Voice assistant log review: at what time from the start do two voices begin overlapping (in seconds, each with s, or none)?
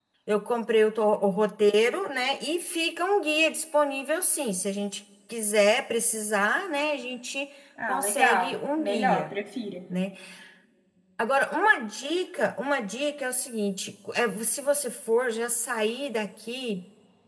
7.8 s